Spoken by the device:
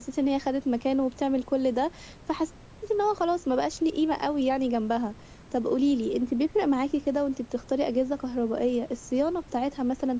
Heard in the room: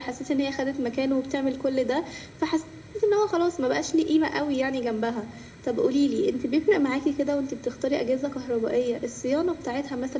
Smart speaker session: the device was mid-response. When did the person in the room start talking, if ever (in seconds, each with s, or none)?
none